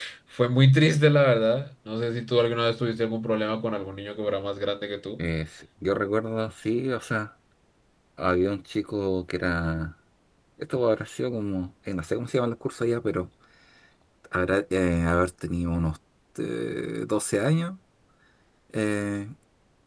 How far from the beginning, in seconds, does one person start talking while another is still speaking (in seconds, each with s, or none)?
none